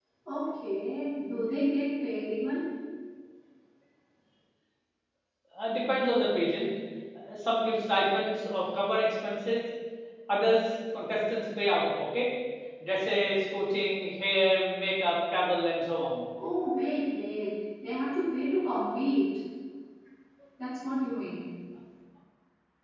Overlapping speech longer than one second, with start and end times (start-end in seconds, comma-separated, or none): none